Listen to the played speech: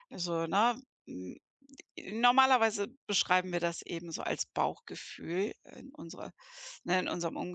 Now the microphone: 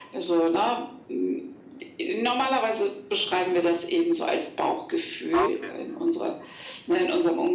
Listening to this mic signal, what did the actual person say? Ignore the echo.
ah, okay,

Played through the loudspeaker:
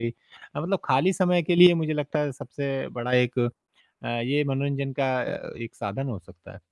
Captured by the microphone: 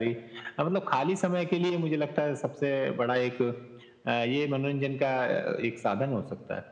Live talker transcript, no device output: none

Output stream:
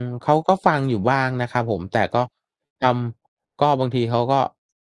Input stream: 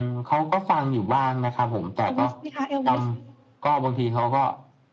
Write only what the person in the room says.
Elvis ไหมคะ Elvis

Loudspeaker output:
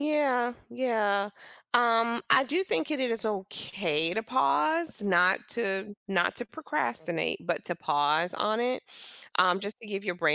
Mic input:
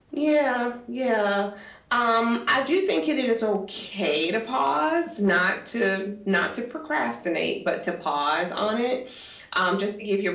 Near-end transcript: none

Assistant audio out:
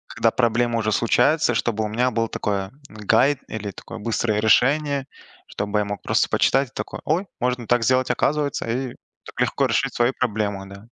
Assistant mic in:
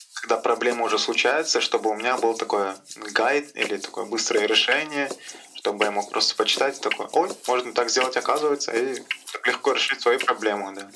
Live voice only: none

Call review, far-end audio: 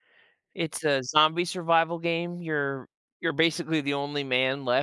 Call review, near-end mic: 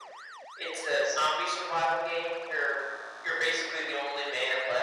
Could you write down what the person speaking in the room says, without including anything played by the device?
none

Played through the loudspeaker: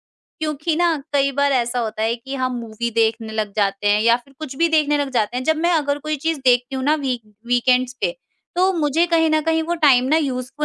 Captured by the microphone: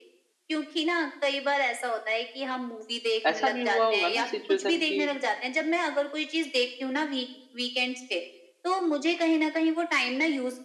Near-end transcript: ऐसा भी हुआ होगा ना सिचुएशन कि

